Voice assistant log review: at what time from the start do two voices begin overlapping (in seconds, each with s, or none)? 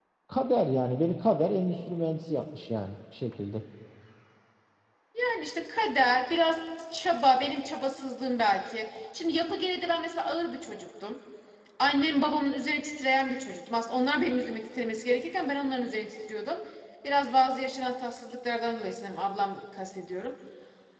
none